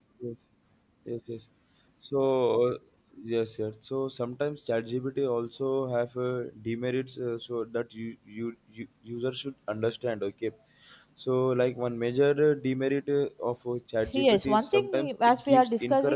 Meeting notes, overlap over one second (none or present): present